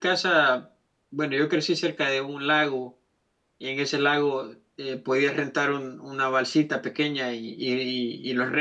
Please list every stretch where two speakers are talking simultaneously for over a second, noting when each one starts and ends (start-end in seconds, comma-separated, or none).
none